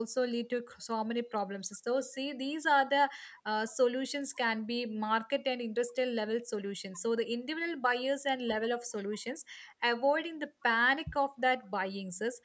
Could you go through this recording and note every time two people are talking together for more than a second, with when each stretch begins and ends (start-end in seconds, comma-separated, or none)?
none